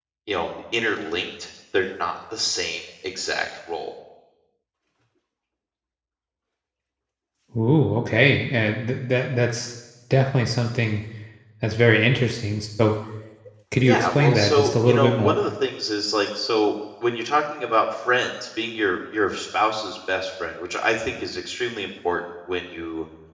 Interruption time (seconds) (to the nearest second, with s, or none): 14 s